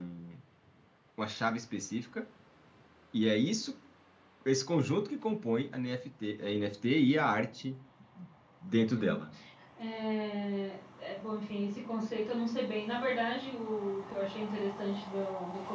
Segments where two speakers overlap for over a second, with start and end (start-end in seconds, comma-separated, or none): none